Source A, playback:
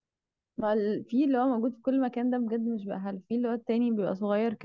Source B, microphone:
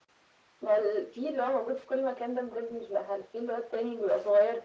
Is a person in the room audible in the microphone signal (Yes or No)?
No